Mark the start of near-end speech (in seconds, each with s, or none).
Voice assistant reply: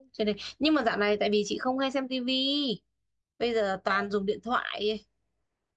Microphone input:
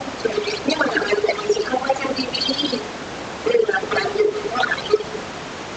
none